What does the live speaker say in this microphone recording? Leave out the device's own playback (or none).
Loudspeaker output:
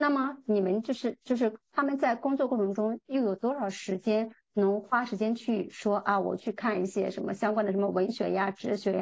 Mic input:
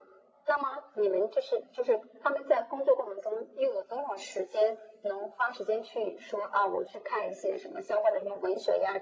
none